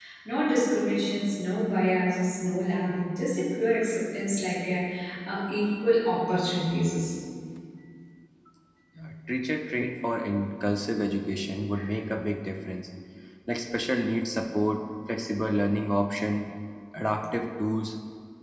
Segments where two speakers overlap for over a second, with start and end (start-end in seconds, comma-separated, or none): none